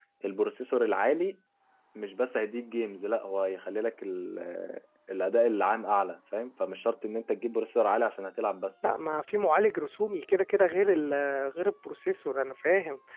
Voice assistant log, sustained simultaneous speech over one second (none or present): none